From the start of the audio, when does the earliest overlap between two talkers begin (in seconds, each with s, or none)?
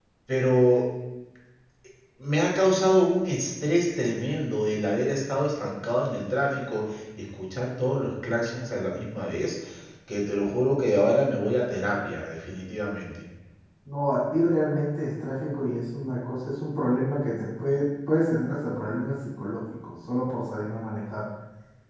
none